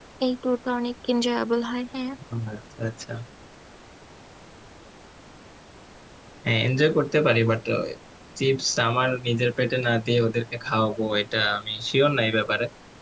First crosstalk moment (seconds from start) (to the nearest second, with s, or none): none